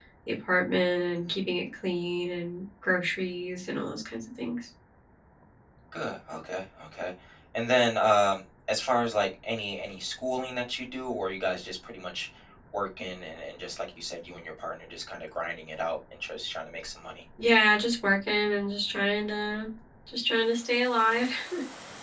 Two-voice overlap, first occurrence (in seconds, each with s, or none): none